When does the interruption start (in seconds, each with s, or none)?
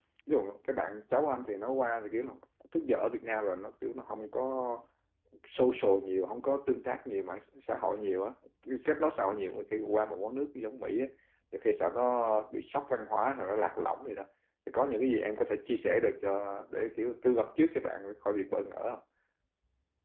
none